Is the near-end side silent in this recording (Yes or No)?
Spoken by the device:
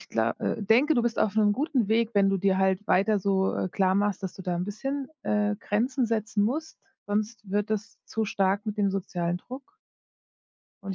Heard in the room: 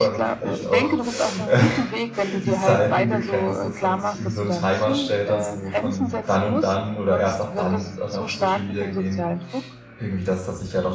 No